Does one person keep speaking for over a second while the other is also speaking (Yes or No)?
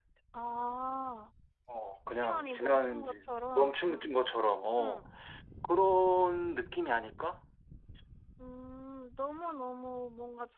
Yes